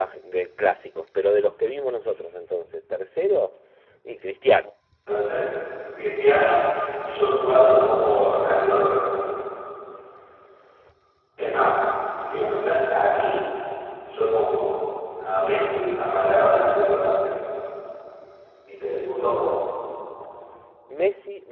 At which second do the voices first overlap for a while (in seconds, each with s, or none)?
none